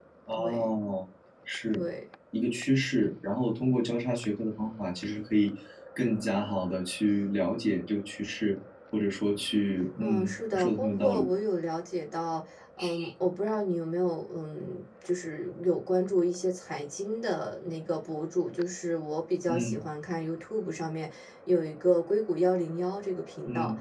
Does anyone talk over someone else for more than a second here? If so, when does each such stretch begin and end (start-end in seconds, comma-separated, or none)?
10.0-11.3